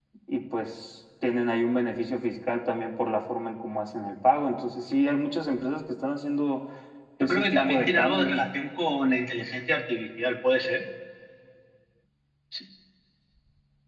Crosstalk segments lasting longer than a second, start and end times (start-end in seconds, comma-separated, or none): 7.2-8.4